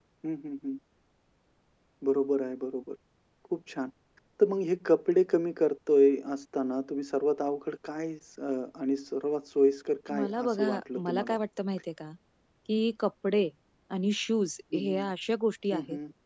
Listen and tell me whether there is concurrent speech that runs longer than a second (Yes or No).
Yes